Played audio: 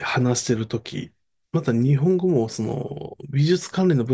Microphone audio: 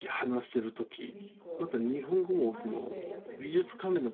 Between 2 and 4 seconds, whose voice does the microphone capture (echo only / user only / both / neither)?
both